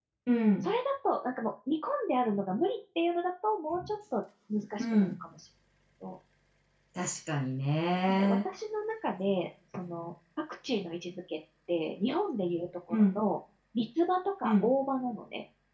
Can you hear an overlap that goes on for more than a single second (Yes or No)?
No